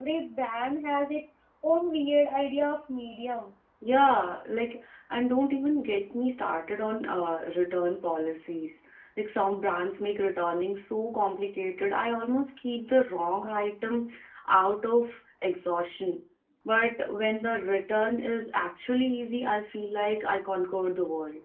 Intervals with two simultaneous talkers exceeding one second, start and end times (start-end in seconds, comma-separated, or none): none